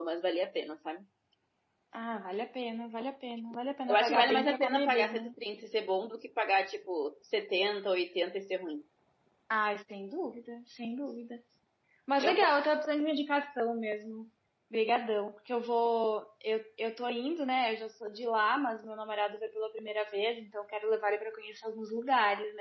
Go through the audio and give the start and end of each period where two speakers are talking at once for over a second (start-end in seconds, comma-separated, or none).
3.9-5.3